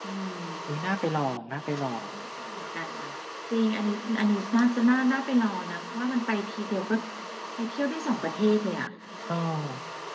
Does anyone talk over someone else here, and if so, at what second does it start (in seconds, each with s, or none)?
none